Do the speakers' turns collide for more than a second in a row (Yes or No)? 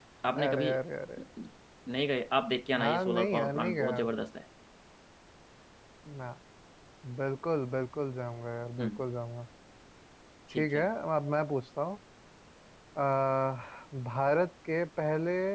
Yes